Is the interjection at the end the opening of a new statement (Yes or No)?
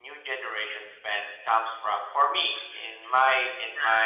No